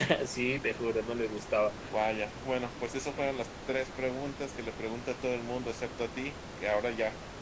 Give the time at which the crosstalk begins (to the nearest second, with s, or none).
none